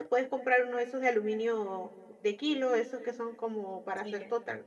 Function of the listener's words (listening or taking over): listening